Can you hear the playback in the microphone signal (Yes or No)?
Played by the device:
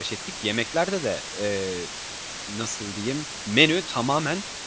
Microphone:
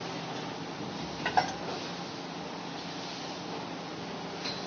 No